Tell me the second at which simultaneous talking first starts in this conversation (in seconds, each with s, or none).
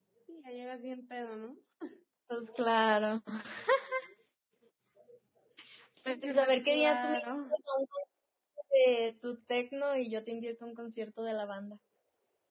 6.1 s